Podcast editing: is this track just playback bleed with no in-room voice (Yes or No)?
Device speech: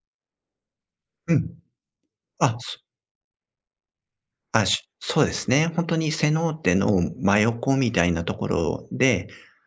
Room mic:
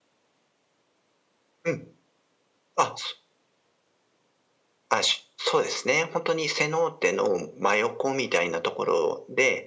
Yes